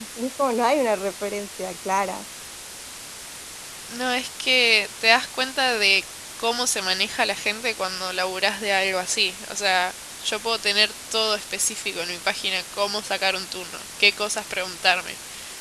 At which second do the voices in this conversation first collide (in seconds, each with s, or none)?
none